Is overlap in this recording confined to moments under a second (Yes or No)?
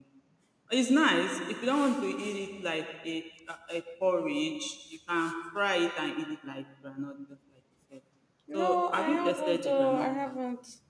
No